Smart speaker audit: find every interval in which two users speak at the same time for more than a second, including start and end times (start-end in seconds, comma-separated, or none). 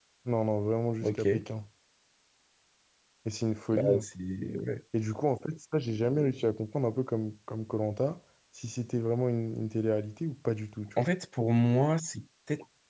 none